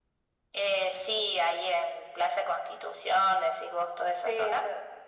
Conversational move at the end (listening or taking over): taking over